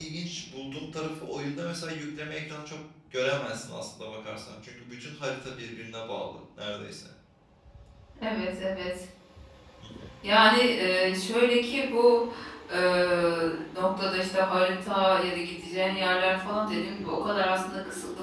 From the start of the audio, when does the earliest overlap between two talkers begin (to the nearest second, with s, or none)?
none